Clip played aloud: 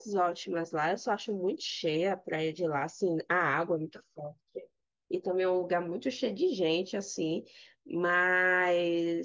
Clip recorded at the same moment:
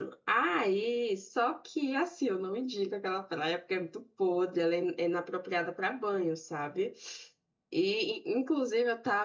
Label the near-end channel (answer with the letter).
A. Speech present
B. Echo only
A